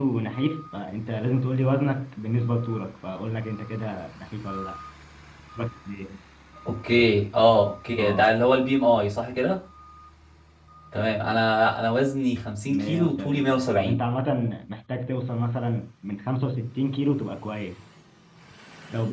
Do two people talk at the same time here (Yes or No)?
Yes